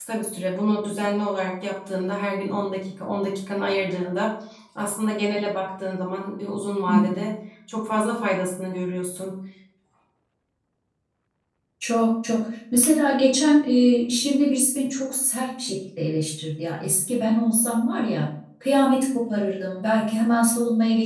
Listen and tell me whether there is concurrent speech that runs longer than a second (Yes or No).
No